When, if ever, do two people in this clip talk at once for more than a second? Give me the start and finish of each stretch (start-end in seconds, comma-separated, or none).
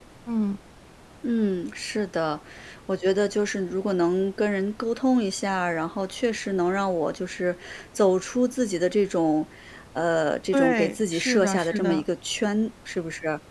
10.5-12.0